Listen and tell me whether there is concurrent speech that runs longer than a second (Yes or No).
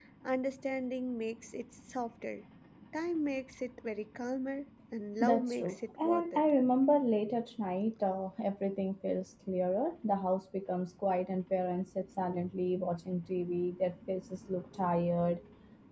Yes